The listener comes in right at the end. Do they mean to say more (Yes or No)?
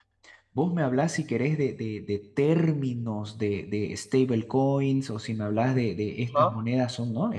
No